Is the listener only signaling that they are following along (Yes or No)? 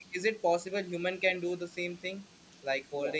Yes